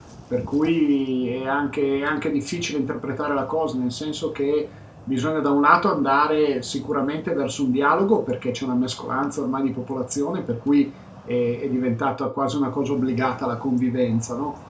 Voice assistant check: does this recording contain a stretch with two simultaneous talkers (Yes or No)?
No